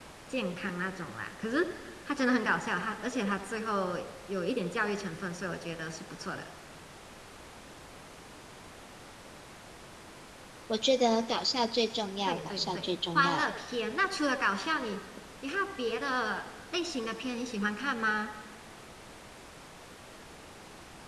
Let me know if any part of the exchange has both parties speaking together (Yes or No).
Yes